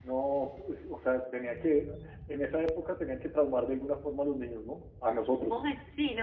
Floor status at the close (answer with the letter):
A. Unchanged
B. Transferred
B